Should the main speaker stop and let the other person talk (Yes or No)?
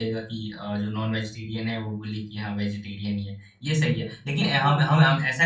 No